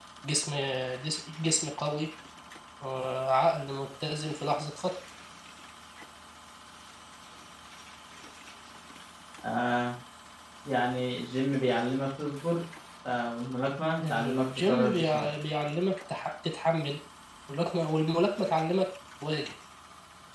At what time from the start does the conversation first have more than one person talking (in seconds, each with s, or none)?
14.0 s